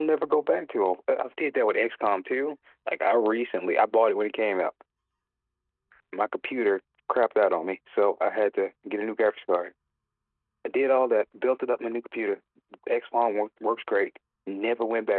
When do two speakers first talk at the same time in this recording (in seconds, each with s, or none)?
none